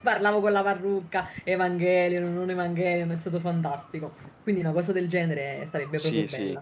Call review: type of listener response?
taking over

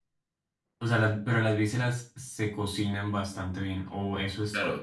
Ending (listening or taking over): taking over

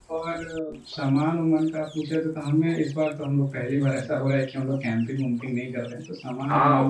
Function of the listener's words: taking over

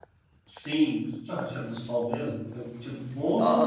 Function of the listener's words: taking over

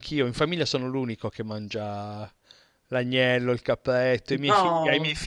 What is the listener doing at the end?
listening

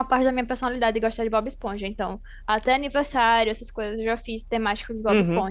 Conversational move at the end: listening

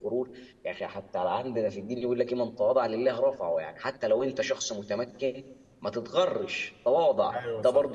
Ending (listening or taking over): listening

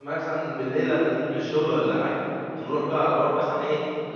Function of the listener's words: listening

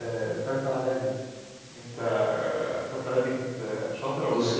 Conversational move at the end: taking over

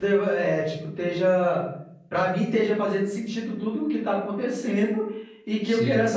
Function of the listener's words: listening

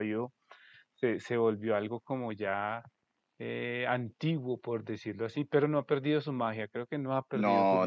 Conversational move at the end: taking over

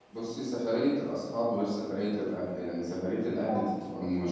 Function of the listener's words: listening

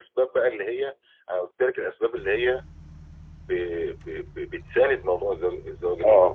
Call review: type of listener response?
listening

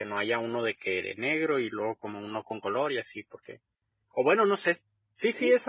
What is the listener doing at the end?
listening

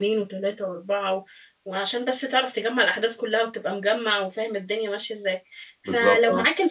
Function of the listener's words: listening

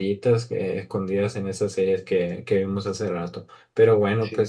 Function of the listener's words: listening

